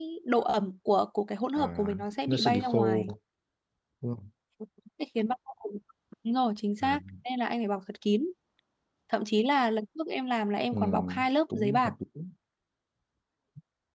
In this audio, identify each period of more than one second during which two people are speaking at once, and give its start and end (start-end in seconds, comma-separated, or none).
1.6-3.1